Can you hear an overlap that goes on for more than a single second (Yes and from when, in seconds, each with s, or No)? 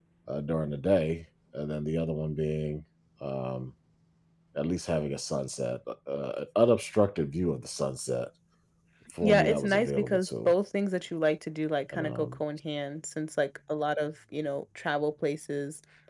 Yes, from 9.2 s